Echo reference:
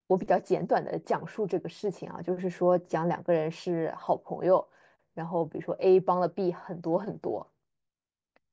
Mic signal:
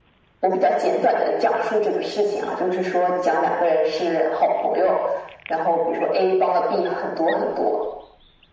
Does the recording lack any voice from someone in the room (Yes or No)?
Yes